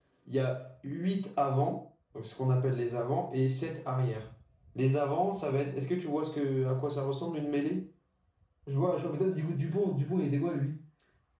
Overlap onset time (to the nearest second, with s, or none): none